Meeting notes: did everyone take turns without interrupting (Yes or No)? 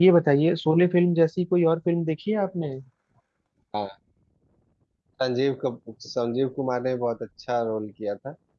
Yes